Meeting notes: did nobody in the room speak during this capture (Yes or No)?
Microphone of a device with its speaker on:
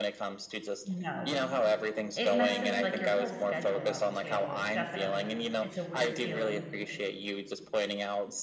No